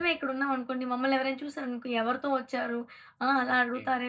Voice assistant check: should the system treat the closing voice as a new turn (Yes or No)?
No